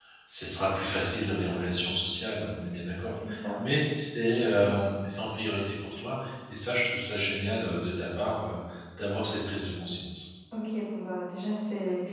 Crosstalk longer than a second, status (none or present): none